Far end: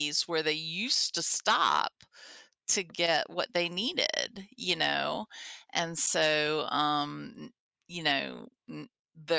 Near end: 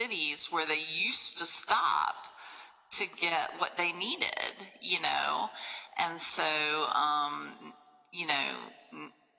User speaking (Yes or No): No